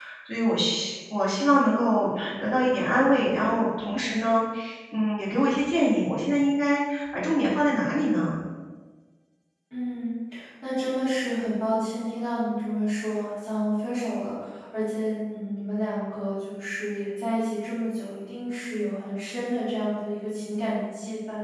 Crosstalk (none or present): none